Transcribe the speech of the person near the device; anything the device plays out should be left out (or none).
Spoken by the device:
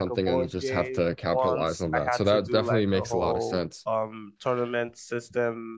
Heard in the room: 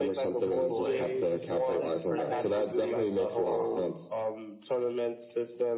deployed, which is just like my first name, last name dot com.